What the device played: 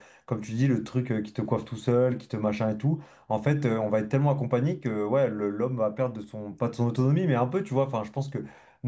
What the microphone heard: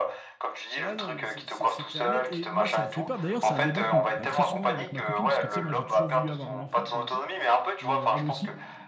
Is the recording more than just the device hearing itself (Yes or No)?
Yes